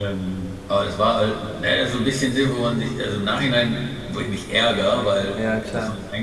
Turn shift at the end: No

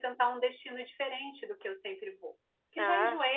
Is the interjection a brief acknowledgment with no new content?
Yes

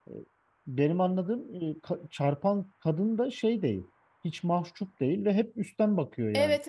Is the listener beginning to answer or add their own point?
No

